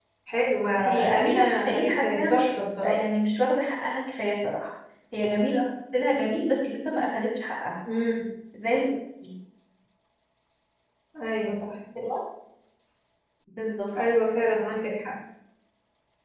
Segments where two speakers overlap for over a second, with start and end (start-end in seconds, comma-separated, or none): 0.8-3.0